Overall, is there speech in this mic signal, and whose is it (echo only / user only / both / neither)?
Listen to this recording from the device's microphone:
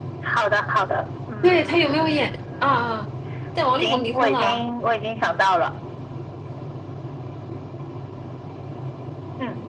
both